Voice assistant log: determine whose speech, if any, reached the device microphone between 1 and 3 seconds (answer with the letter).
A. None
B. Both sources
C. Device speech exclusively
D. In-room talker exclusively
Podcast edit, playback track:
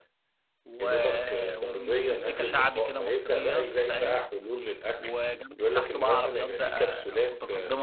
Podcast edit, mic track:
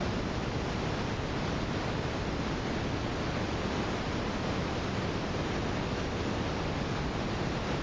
A